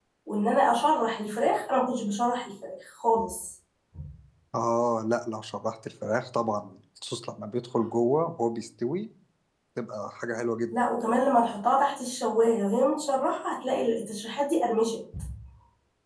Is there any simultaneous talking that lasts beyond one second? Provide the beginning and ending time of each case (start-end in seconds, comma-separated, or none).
none